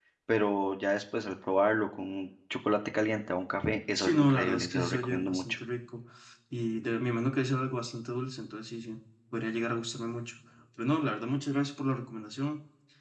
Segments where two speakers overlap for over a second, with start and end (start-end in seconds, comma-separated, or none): 4.0-5.6